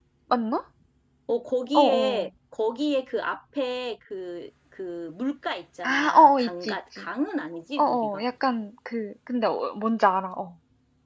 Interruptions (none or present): present